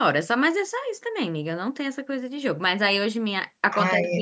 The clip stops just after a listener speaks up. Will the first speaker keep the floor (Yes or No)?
Yes